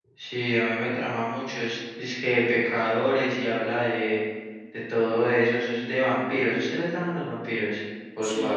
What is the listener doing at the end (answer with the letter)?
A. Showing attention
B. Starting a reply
B